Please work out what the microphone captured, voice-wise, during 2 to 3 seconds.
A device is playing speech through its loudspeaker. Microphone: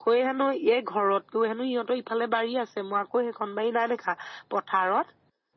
echo only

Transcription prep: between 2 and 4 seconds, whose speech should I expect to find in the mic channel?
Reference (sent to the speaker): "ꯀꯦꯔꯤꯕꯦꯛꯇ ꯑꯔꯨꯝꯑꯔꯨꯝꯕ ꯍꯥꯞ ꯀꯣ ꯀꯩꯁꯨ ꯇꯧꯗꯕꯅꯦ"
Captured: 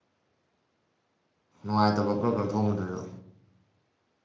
user only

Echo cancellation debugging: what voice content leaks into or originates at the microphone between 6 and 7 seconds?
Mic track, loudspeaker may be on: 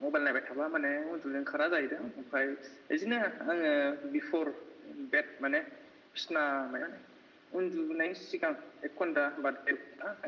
echo only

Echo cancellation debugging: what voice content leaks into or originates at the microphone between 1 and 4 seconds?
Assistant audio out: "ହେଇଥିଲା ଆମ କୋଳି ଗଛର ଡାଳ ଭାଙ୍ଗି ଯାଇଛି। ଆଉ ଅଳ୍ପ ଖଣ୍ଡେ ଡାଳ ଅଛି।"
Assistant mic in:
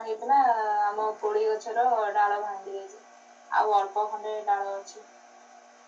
echo only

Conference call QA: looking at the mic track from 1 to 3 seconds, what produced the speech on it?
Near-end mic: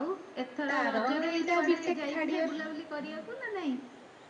both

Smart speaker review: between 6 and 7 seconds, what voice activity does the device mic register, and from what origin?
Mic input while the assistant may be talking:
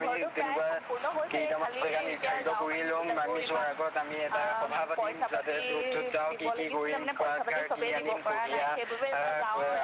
echo only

